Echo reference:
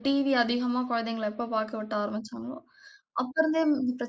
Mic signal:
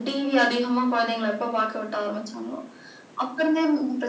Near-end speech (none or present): none